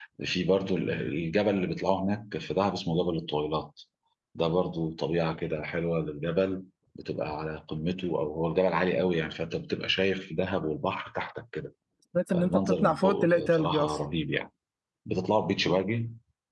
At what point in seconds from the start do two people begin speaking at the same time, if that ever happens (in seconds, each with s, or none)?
12.3 s